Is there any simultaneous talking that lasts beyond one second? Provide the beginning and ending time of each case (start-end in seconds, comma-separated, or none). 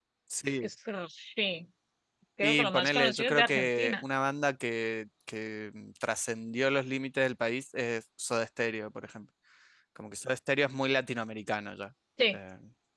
2.4-4.0